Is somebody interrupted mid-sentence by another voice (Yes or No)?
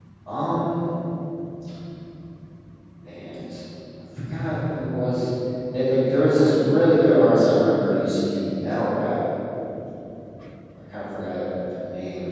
No